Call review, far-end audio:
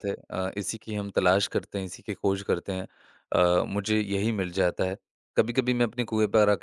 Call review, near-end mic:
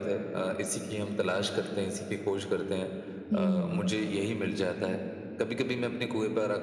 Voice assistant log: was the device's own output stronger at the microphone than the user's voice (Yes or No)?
No